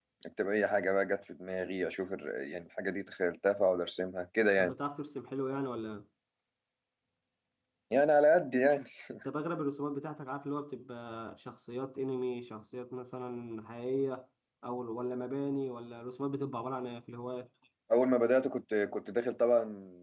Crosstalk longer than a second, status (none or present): none